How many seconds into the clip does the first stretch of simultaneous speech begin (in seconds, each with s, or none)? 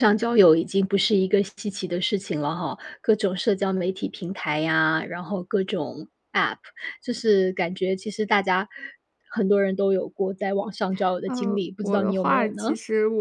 11.3 s